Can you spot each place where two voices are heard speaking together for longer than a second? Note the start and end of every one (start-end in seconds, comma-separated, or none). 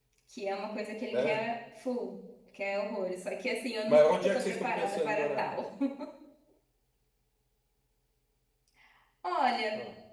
3.9-5.5